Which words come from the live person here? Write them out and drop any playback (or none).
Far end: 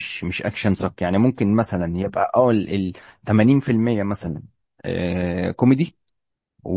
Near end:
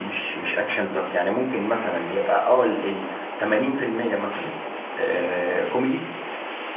none